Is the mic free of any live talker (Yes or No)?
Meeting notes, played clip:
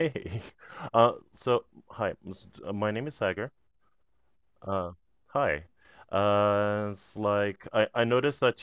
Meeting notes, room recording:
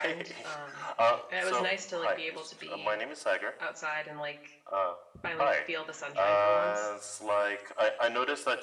No